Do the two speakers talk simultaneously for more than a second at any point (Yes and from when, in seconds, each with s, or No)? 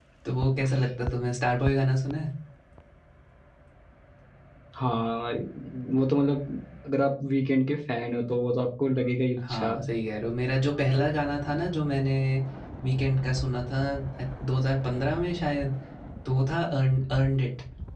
No